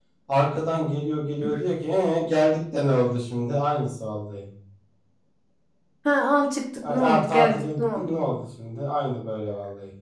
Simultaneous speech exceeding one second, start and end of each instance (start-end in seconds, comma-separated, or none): 6.9-8.2